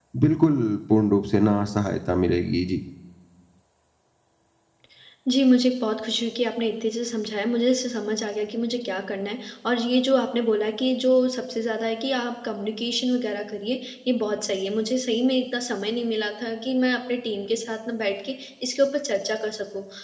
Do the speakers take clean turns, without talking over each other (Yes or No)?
Yes